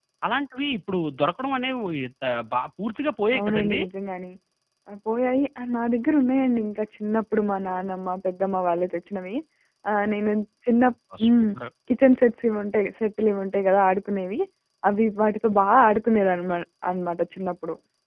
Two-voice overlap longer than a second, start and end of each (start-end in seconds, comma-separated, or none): none